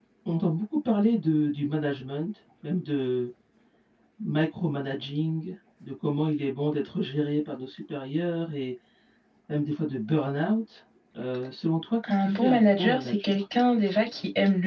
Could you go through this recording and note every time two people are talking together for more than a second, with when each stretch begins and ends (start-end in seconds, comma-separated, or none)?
12.1-13.4